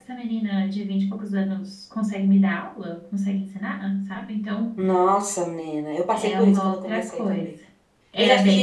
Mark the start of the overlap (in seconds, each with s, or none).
6.1 s